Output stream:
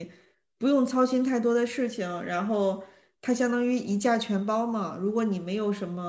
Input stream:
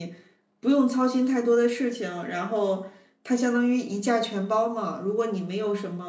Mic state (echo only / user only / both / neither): echo only